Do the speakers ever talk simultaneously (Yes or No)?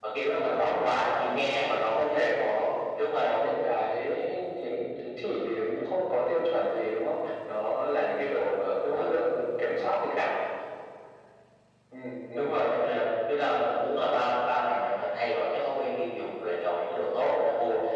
Yes